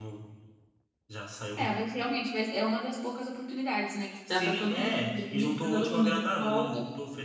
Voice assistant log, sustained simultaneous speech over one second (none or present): present